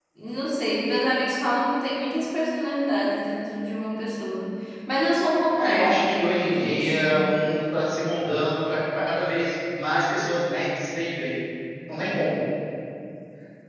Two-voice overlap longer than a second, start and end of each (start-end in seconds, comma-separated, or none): 5.6-7.2